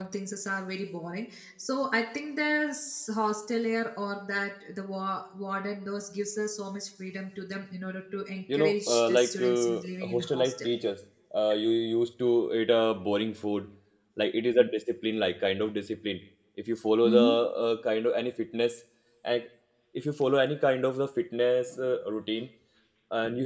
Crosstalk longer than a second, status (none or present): present